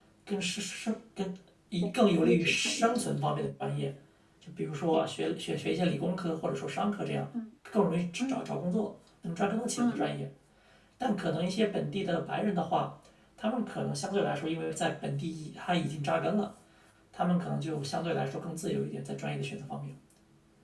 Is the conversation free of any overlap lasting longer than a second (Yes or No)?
No